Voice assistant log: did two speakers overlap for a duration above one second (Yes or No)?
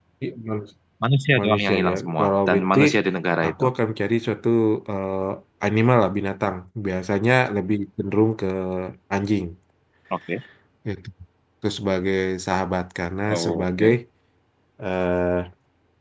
Yes